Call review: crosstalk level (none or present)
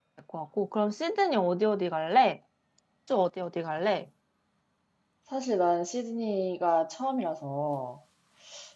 none